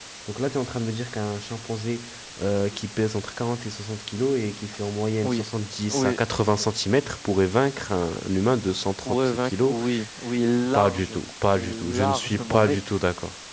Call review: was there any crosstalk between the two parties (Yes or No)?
Yes